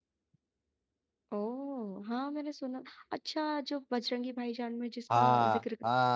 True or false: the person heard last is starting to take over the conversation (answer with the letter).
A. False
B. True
B